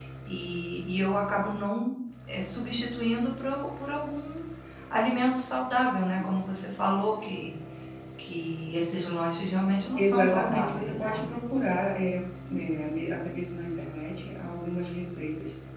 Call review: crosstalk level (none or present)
present